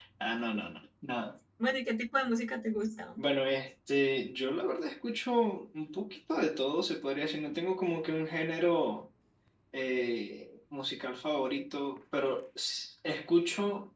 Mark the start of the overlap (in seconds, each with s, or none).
none